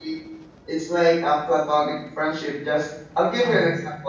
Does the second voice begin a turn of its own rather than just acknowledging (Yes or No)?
No